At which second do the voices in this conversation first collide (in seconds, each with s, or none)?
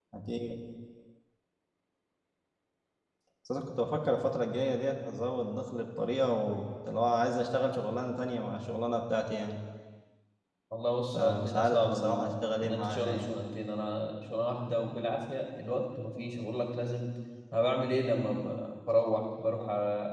11.1 s